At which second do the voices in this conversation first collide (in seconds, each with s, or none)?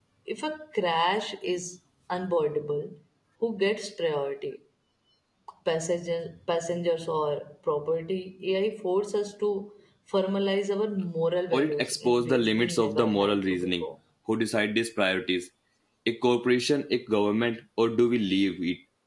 11.5 s